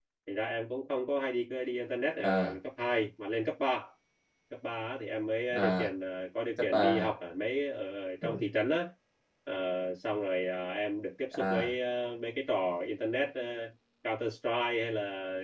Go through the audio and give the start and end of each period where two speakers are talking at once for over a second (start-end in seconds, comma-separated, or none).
none